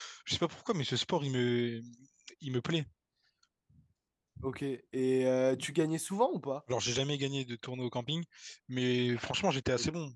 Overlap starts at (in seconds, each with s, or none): none